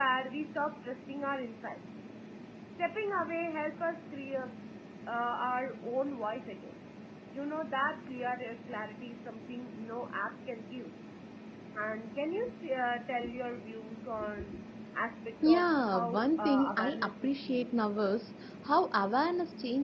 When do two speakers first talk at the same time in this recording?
15.4 s

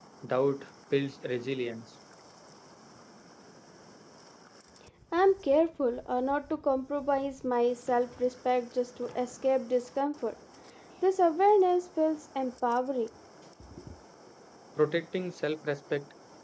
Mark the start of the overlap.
none

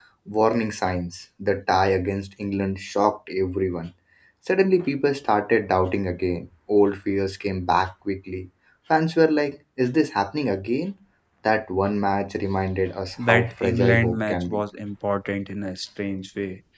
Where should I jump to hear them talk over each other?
13.2 s

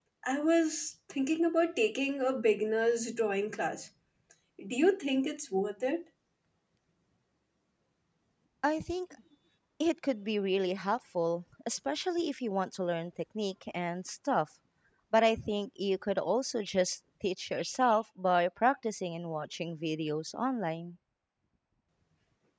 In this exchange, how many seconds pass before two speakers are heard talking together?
none

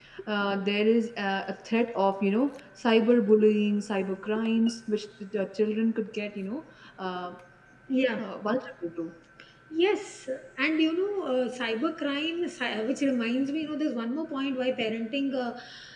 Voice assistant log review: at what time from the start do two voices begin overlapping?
none

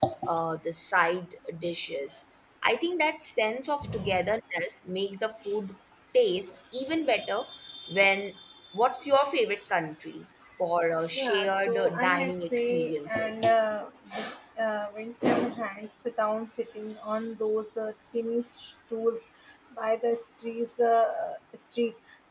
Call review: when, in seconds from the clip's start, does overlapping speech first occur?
11.2 s

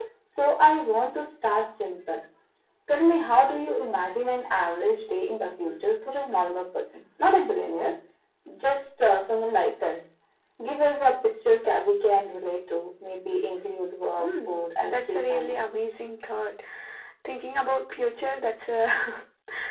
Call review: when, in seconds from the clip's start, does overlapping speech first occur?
14.2 s

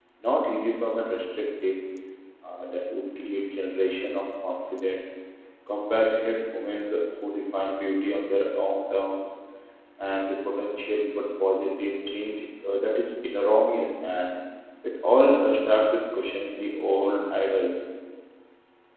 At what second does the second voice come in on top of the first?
none

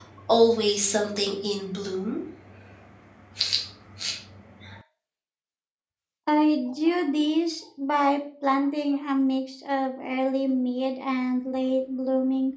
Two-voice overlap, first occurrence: none

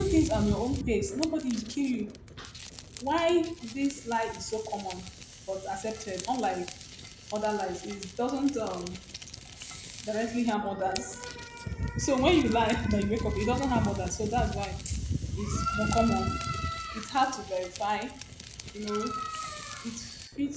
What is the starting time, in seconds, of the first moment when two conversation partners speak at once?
none

